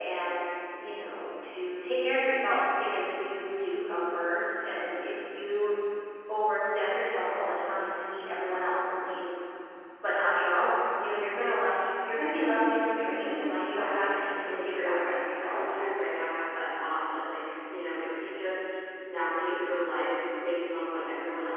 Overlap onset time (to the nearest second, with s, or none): 14 s